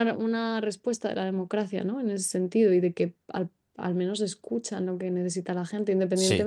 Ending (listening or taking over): listening